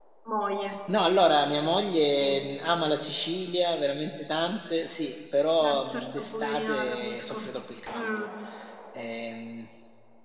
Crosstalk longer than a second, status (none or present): present